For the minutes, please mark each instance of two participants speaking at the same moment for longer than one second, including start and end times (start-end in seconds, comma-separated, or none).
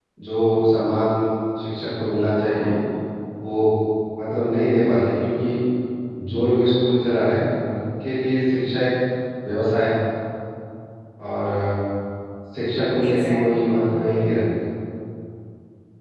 13.0-14.2